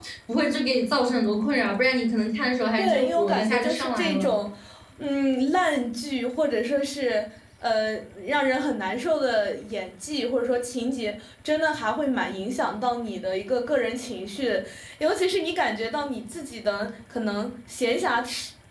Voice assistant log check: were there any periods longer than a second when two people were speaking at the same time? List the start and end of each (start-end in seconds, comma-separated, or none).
2.8-4.4